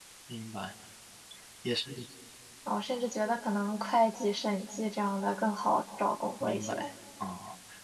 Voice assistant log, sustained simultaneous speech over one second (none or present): none